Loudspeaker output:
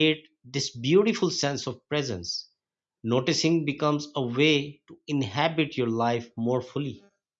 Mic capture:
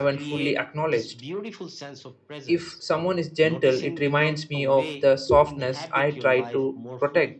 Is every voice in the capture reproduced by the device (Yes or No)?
No